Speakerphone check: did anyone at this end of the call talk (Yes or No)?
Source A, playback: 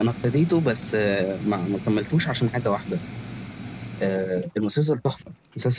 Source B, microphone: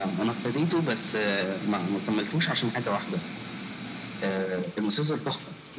No